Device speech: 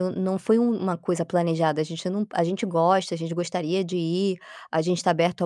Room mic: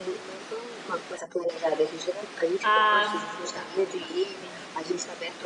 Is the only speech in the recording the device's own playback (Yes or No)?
No